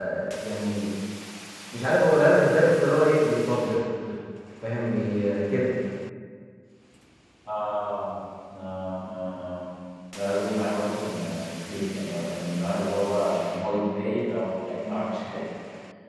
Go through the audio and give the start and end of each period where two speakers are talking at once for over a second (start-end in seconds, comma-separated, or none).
none